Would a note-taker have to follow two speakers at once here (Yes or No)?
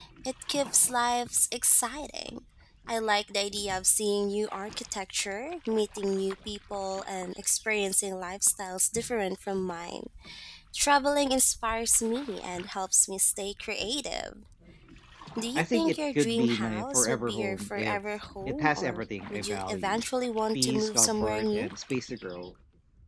Yes